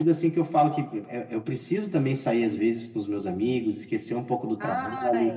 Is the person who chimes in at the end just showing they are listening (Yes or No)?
Yes